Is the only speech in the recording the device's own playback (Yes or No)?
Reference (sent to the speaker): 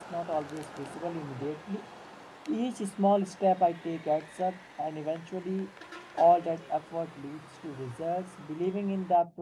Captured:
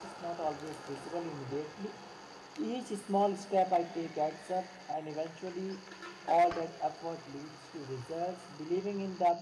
Yes